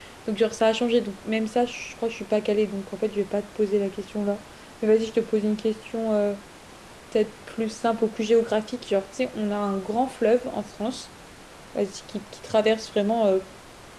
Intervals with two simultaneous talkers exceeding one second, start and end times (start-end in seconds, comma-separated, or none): none